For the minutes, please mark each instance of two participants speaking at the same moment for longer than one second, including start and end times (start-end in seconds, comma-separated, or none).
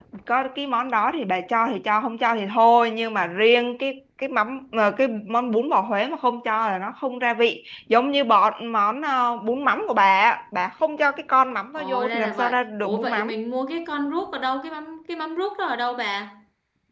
11.8-13.3